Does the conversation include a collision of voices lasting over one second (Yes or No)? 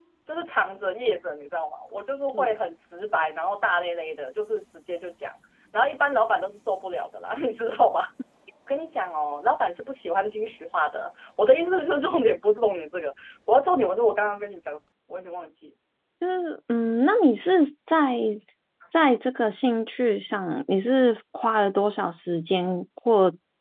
No